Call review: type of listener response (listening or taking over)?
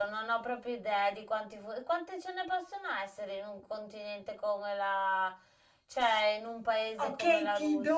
taking over